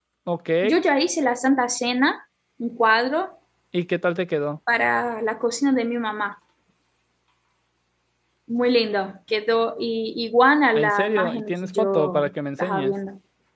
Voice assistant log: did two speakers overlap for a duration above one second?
Yes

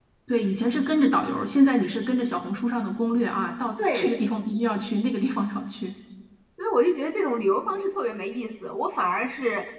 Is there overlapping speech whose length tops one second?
No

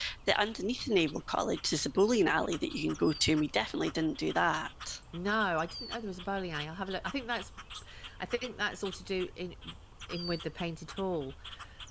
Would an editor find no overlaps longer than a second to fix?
Yes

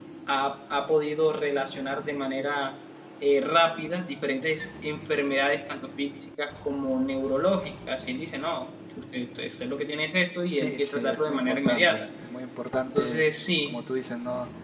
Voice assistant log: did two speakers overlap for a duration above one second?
Yes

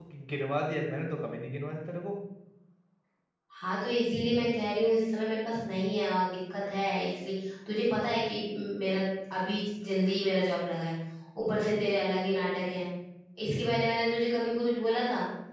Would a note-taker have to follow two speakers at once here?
No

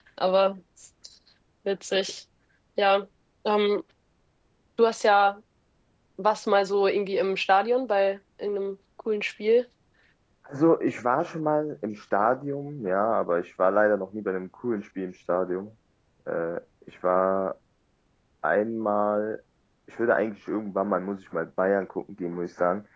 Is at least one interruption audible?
No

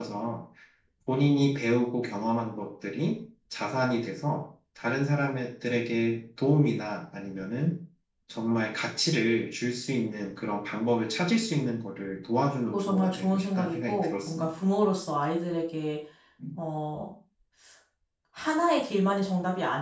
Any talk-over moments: Yes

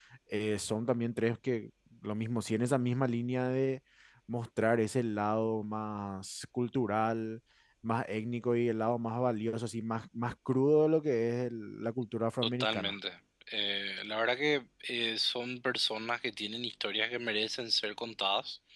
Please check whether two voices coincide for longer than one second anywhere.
No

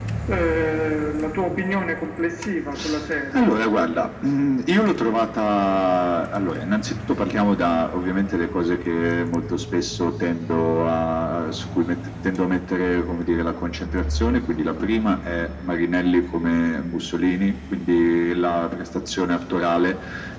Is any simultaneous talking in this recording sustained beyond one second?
No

